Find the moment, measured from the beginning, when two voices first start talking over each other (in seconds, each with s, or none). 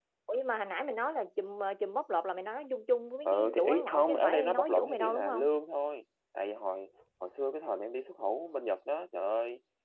3.2 s